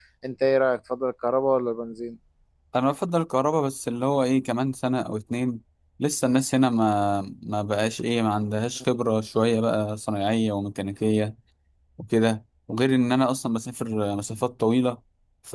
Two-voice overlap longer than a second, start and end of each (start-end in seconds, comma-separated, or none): none